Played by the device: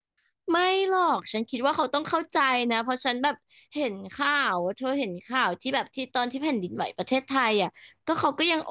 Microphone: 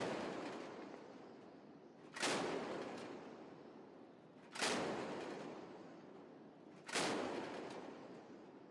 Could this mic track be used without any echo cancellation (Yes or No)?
Yes